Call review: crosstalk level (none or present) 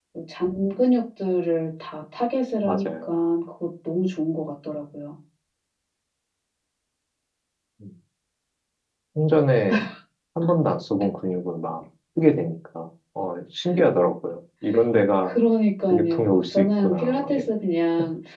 present